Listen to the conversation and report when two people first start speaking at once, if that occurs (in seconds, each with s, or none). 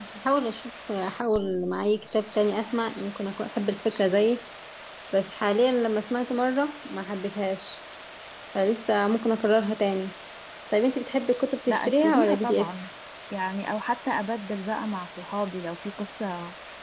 11.7 s